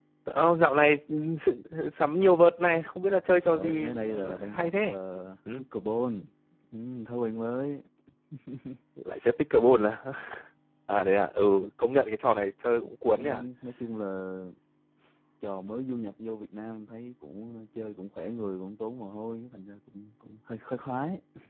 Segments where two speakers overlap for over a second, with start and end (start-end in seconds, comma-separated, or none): 3.5-5.0